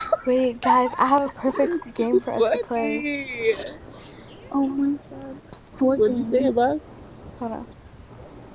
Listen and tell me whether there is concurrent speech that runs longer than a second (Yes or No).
Yes